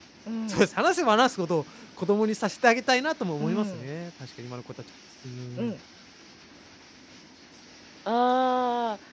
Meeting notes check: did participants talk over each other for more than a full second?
No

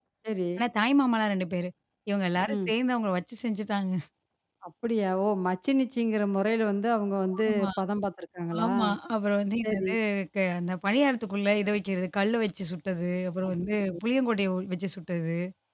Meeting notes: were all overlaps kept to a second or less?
Yes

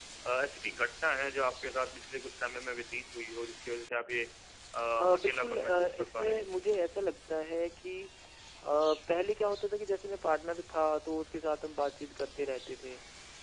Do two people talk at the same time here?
Yes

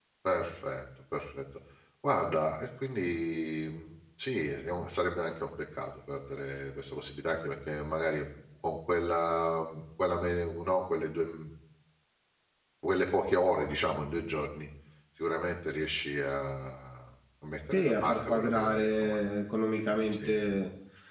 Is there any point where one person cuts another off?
Yes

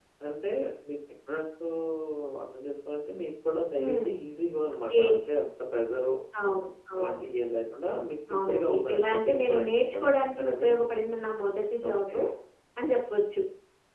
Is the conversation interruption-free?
No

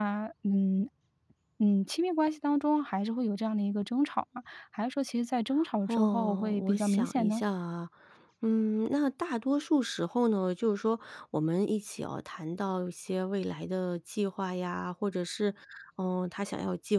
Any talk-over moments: Yes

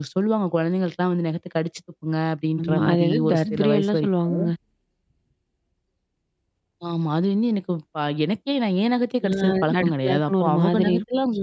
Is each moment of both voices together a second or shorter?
No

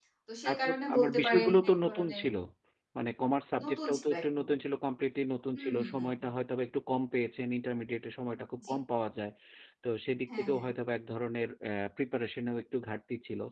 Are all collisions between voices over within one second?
No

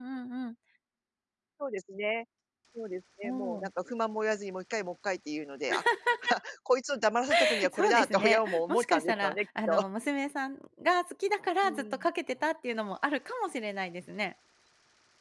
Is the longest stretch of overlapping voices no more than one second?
No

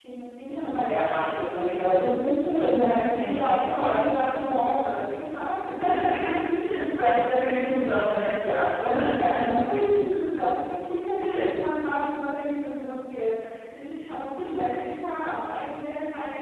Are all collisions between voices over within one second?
No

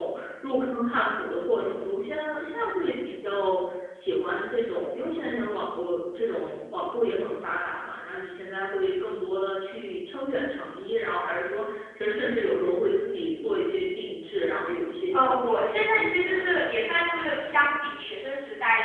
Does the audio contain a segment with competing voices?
Yes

